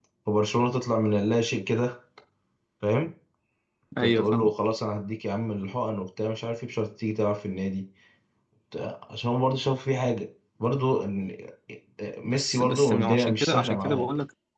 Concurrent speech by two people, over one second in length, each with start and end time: 12.2-14.1

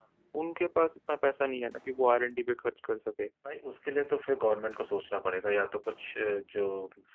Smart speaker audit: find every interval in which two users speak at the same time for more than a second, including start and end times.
none

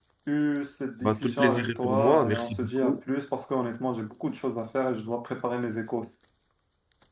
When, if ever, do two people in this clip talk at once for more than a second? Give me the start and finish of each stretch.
1.0-3.0

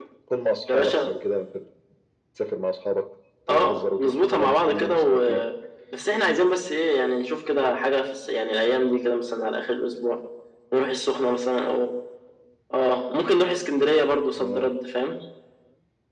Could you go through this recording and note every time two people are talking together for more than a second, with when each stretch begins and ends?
3.5-5.2

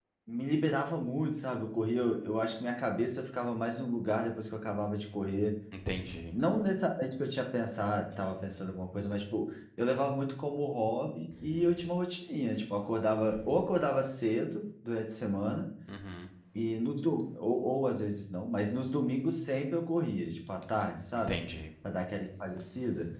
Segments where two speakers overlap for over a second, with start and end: none

